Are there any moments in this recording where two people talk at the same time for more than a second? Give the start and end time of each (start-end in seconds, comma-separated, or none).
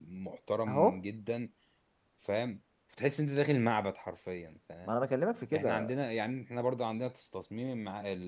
none